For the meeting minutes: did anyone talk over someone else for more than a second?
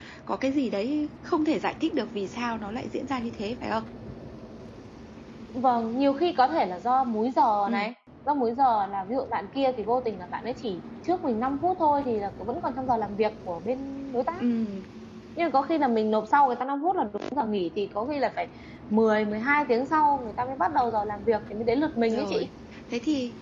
No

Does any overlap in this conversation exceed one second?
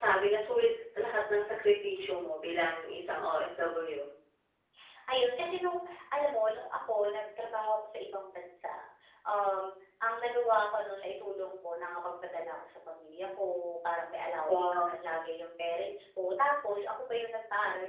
No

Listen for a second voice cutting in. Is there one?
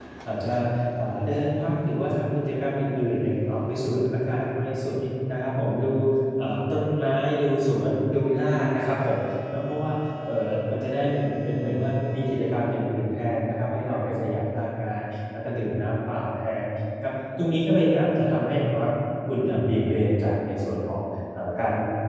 No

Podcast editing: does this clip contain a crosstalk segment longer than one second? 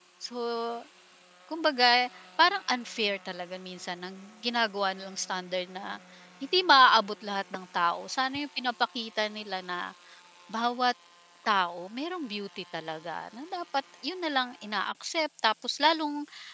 No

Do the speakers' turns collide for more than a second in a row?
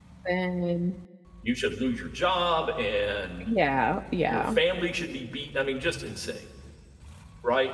No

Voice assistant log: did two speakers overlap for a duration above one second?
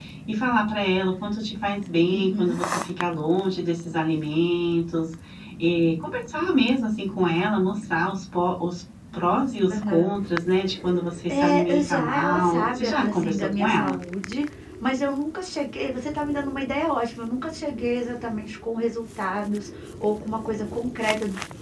Yes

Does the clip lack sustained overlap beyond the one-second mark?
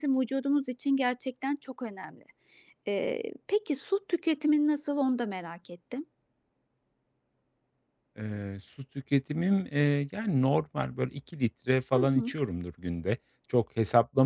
Yes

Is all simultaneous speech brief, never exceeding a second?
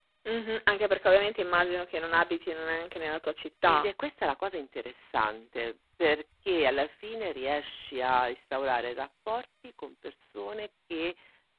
Yes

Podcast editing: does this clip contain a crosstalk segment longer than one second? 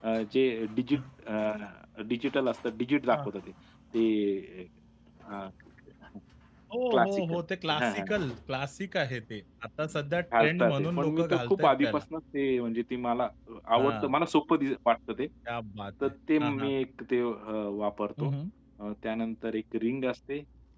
Yes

